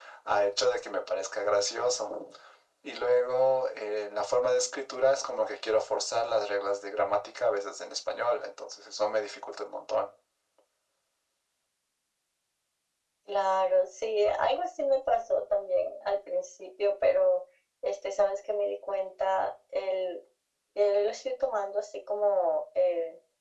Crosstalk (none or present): none